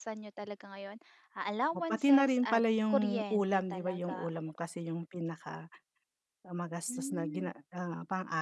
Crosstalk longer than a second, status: present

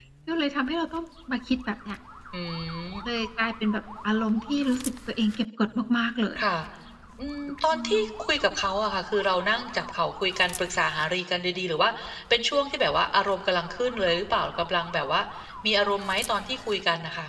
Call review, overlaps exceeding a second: none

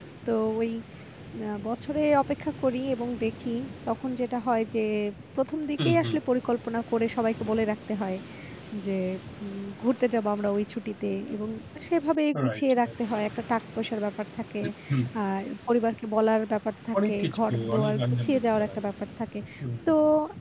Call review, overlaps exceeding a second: present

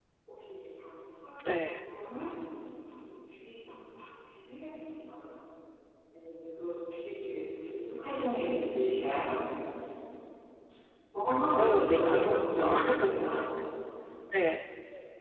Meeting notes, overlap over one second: present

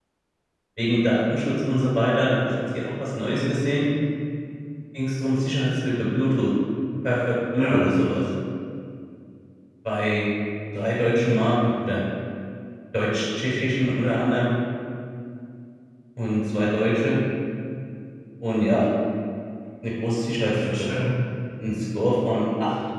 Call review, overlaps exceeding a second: none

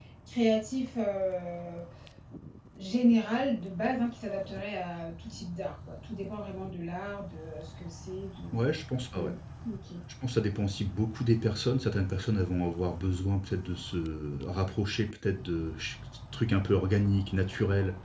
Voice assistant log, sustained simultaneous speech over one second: none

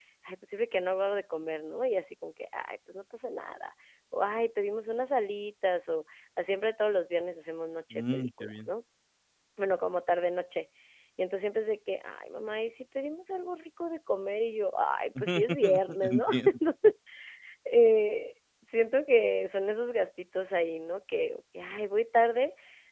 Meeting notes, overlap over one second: present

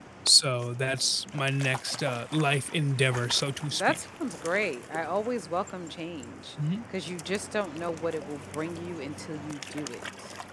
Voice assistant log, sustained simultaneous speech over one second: none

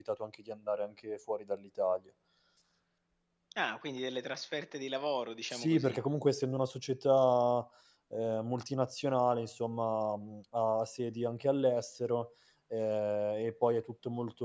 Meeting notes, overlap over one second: none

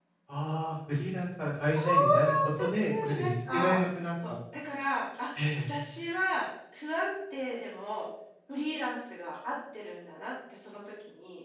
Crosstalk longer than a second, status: present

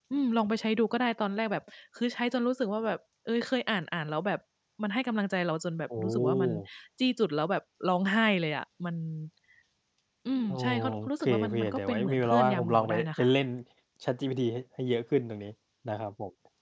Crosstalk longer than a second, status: present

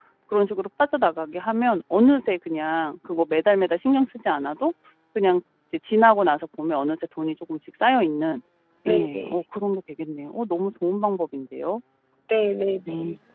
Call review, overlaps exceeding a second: none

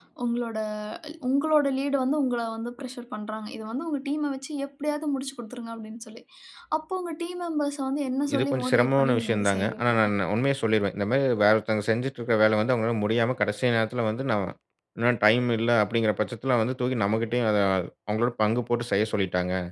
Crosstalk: present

